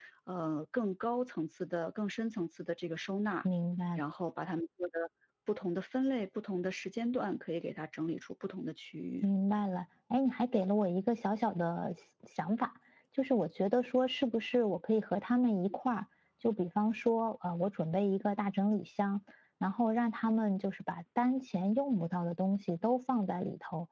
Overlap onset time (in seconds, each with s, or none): none